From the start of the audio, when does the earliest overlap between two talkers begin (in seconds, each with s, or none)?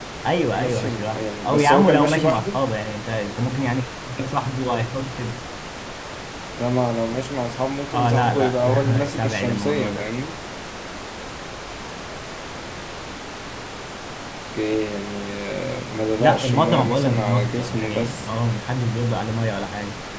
0.5 s